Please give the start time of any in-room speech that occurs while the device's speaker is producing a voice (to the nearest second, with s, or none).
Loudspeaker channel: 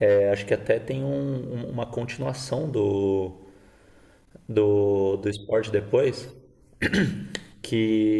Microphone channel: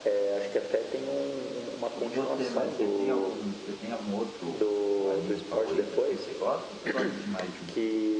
2 s